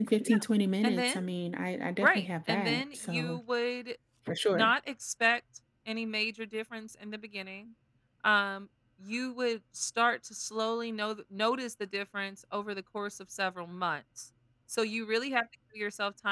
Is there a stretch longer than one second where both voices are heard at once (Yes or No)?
Yes